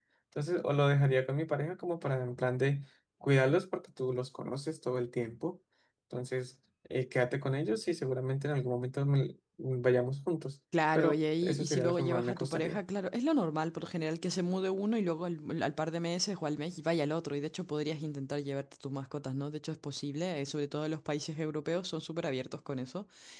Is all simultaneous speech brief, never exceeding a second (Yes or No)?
No